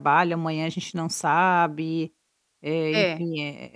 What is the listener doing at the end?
listening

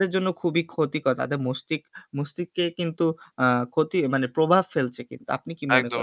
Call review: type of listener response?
taking over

